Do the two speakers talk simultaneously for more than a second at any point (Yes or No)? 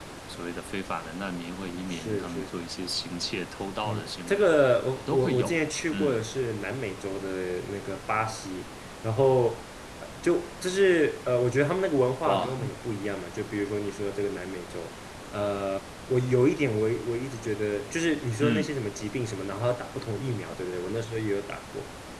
Yes